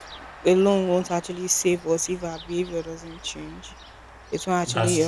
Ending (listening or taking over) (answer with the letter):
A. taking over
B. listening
B